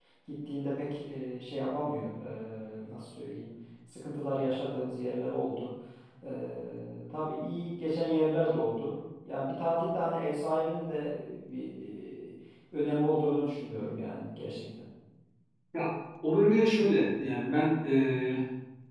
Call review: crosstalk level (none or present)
none